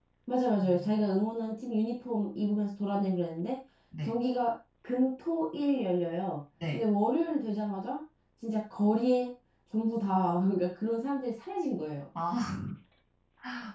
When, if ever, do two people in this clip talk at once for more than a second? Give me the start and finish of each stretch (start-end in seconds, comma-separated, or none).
none